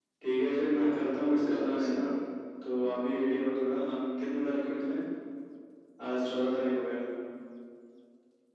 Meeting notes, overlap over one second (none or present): present